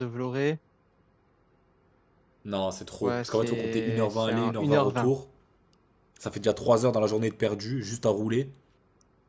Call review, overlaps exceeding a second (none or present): present